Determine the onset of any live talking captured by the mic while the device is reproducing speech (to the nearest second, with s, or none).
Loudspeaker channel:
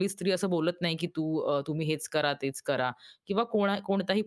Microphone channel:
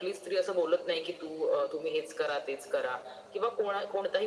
none